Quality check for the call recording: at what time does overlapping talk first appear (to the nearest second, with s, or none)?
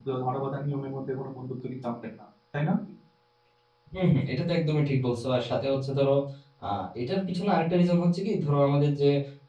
none